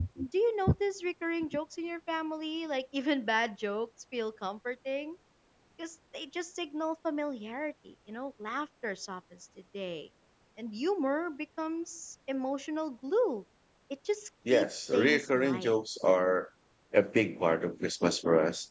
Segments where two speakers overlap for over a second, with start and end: 14.5-15.7

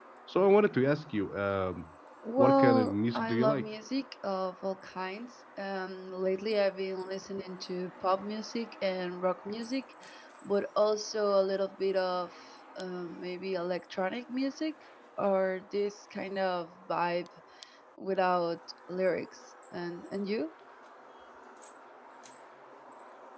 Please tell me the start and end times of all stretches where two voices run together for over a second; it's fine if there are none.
2.4-3.7

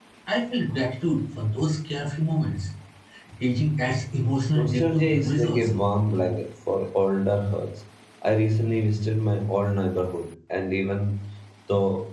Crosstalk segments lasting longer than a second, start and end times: 4.5-5.8

